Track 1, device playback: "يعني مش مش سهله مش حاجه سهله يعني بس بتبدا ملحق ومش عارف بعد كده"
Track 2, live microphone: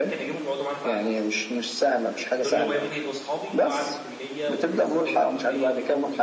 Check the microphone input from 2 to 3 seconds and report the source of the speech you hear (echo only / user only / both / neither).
both